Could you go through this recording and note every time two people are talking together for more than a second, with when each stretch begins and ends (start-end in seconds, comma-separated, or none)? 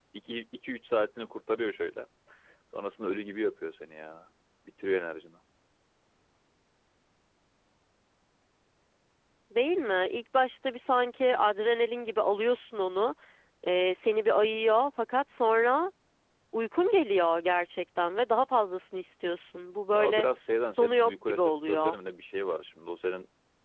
20.8-22.0